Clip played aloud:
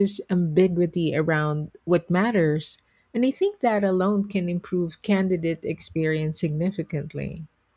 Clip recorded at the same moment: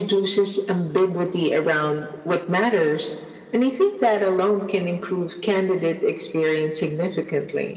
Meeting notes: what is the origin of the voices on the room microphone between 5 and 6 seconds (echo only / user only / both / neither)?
echo only